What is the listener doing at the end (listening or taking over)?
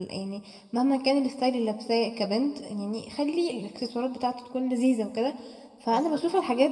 listening